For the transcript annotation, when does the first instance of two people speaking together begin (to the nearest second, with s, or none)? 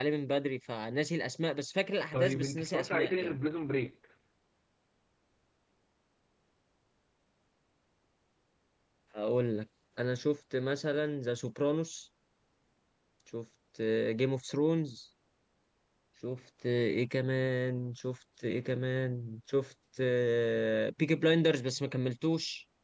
2 s